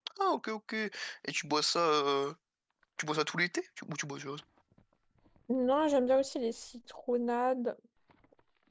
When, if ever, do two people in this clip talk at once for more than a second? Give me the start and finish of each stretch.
none

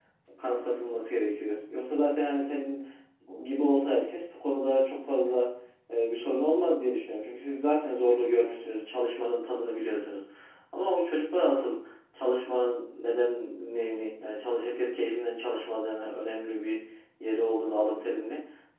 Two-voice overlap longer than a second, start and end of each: none

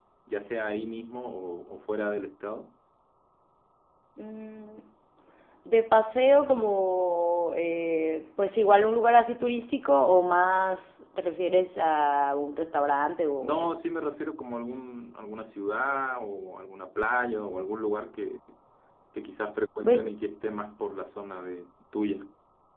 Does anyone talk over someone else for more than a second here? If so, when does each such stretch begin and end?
none

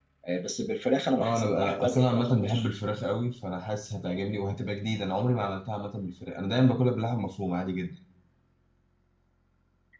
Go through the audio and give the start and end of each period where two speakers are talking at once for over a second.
1.1-2.7

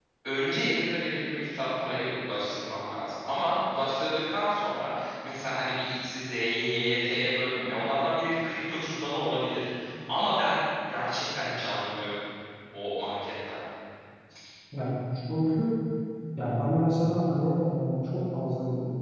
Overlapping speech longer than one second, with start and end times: none

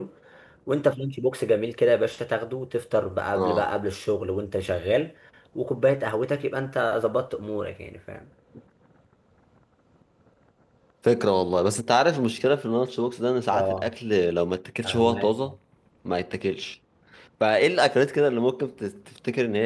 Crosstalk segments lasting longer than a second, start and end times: none

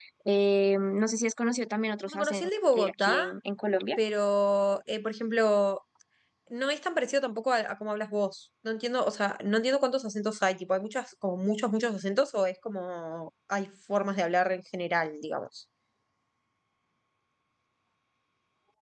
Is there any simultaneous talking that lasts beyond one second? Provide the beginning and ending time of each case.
2.1-3.3

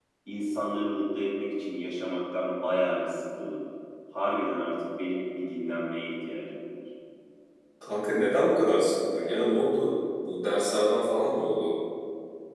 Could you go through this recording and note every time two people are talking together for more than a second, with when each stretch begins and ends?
none

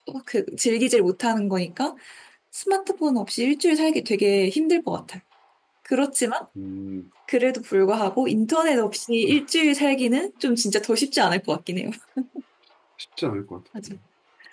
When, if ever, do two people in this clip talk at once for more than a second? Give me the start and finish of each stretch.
none

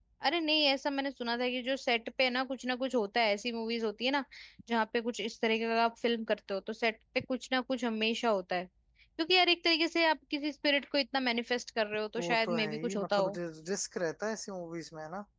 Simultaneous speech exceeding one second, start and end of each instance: 12.2-13.4

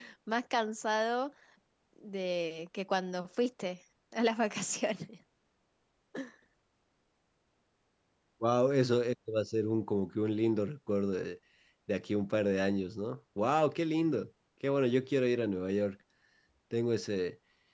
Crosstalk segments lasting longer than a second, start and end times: none

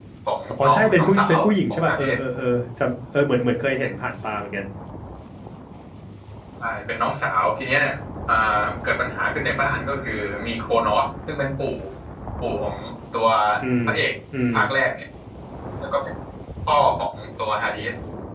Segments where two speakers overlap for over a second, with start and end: 0.6-2.0

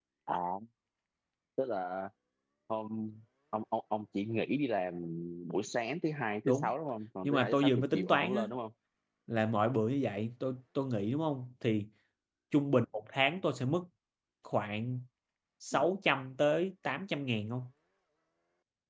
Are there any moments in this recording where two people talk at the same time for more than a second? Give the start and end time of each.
7.2-8.4

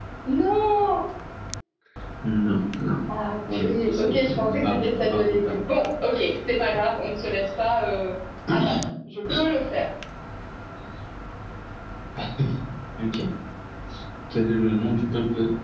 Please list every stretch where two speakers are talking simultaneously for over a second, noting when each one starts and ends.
3.5-5.6

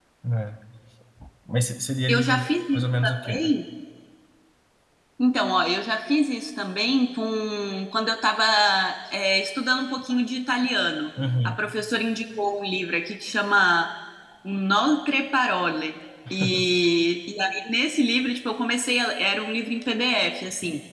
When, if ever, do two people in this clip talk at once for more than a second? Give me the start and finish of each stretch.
2.1-3.4

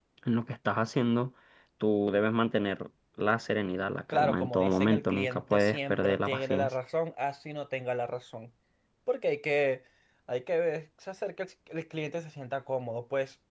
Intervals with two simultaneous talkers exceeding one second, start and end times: 4.1-6.7

